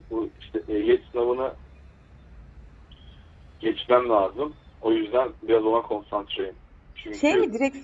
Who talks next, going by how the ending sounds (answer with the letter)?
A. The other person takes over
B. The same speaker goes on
A